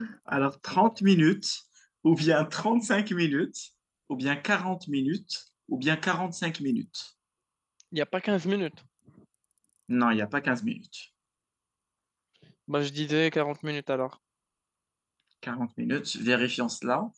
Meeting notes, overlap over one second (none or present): none